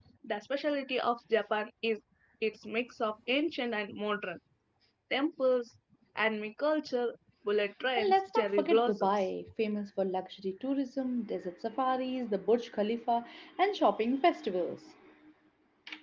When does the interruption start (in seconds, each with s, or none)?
8.0 s